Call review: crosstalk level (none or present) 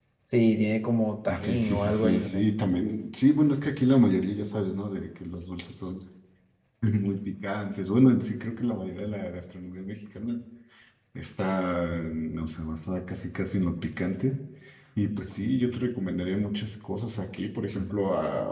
present